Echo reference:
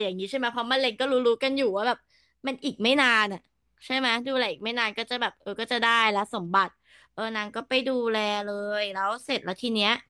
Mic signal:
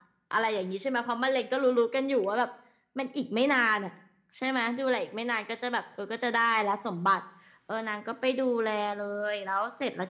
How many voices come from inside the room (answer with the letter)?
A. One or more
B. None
B